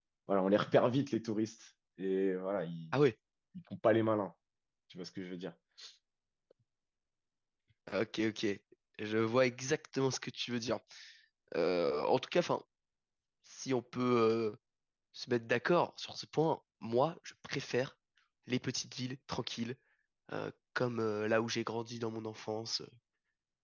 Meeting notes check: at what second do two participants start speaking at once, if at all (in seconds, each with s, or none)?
none